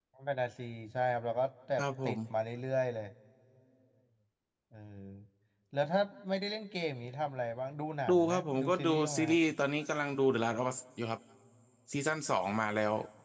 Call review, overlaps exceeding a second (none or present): present